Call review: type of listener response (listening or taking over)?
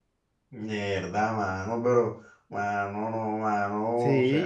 taking over